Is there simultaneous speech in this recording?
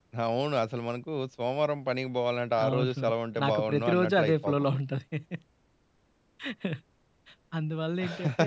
Yes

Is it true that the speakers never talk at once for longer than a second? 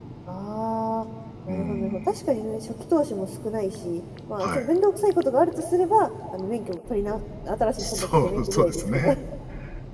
No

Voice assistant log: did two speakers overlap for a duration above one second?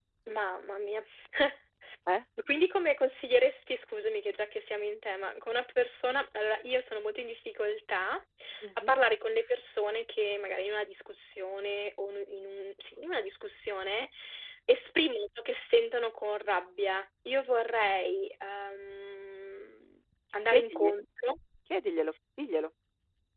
No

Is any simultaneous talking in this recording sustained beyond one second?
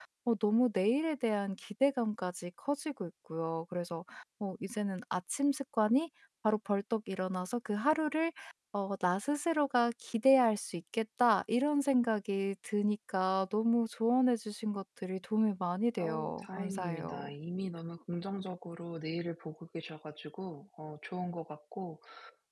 Yes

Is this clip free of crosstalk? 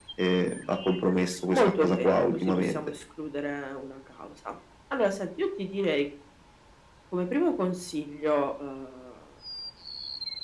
No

